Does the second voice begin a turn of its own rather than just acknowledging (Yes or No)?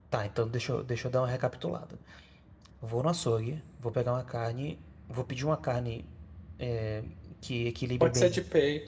Yes